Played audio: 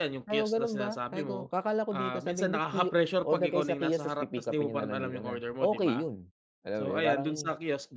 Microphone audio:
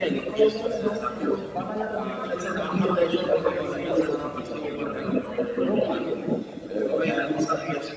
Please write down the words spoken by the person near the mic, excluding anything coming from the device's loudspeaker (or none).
none